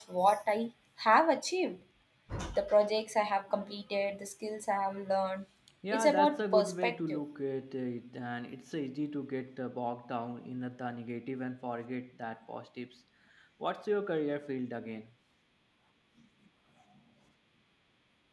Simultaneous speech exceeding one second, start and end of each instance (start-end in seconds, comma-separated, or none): 5.9-7.2